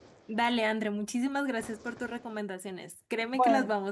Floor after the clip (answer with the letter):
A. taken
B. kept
B